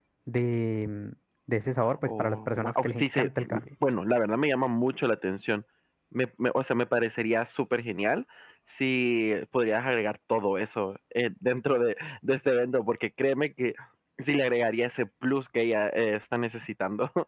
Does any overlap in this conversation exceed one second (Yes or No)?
Yes